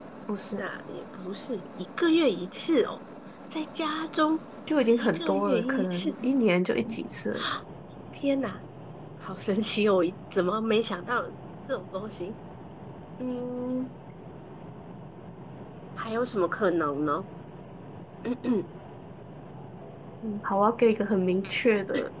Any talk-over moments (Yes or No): Yes